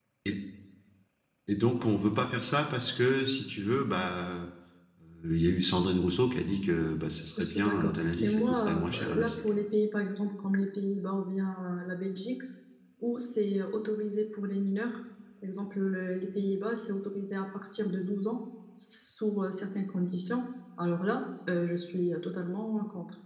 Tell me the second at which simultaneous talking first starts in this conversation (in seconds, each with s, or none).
7.4 s